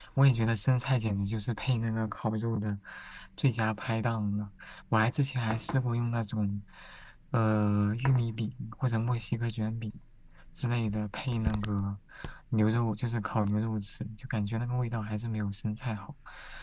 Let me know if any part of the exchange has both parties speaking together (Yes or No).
No